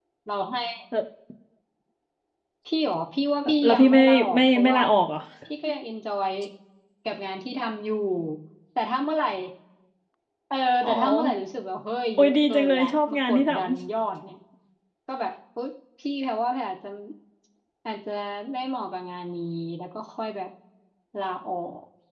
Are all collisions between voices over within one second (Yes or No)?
No